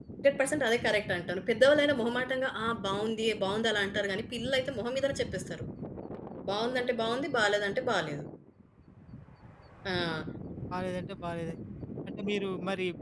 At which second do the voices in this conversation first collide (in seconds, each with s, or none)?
none